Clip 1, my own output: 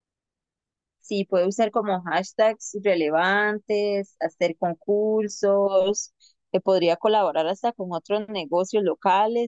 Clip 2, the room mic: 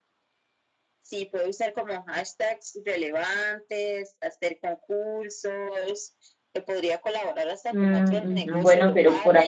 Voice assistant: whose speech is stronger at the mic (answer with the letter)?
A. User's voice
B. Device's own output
A